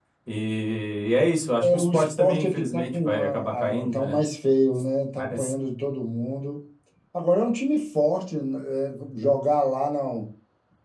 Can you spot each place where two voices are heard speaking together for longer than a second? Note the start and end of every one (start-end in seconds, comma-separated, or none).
1.6-4.1